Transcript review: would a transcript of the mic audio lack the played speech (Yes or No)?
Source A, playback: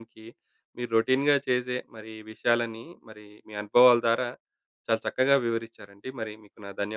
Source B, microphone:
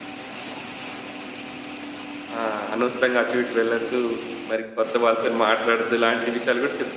Yes